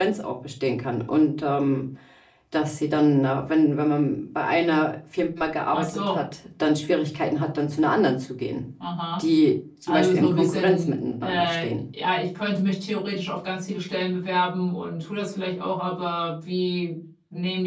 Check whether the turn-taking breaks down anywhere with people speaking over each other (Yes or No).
Yes